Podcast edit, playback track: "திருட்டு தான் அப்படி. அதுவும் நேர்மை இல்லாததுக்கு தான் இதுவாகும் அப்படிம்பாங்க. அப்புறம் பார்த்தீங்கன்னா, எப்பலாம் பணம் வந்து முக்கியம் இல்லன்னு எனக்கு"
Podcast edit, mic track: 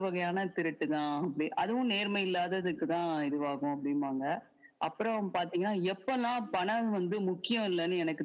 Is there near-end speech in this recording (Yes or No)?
No